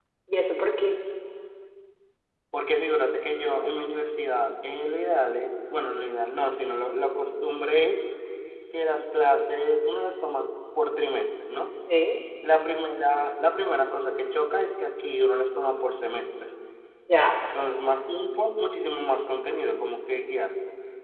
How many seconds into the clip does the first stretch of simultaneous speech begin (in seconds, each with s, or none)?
none